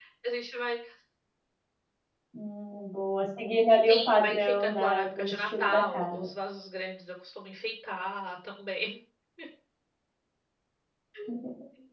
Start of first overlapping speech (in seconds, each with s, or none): 3.9 s